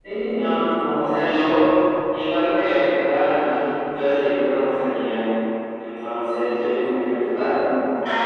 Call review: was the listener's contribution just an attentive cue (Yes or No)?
No